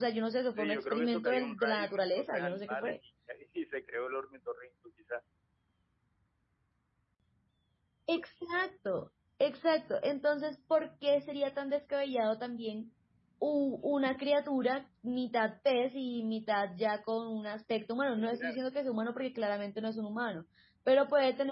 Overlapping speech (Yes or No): Yes